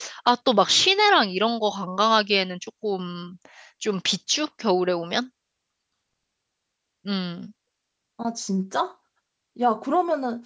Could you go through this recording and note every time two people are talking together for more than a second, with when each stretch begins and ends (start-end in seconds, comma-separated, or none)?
none